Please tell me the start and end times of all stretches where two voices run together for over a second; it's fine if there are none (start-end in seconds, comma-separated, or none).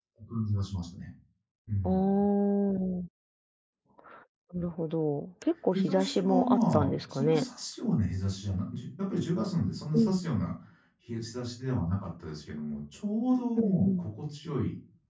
5.7-7.4